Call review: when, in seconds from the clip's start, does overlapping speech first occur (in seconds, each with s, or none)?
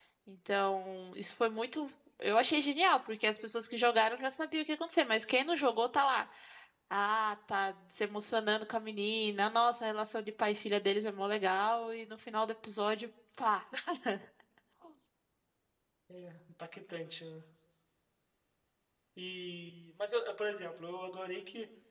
none